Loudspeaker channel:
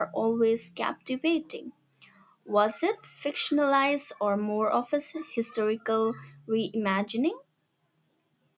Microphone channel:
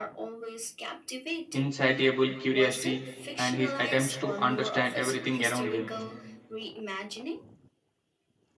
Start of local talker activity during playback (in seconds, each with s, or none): 1.5 s